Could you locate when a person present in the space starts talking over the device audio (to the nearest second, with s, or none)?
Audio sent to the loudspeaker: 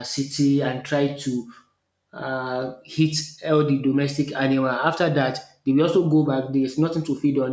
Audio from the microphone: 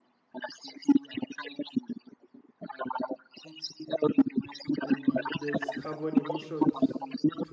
5 s